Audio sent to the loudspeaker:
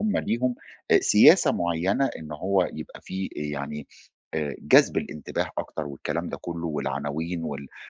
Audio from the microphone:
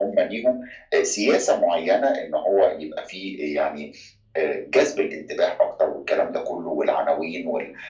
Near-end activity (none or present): none